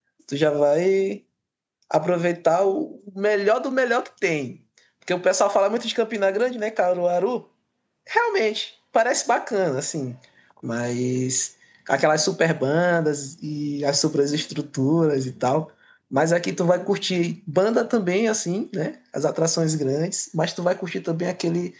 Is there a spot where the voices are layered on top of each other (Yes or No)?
No